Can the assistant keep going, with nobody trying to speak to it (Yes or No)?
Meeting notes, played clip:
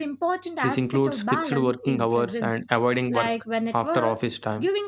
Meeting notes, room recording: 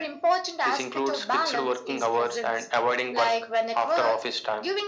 Yes